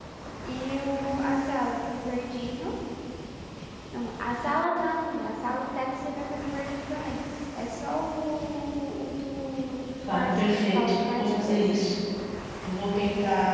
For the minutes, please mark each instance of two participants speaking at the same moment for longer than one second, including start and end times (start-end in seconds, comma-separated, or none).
10.1-11.8